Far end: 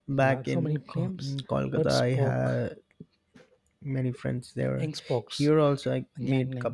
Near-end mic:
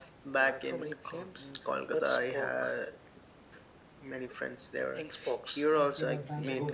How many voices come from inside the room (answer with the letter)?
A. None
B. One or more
B